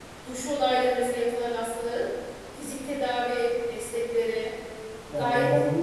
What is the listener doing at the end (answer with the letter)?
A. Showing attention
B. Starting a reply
B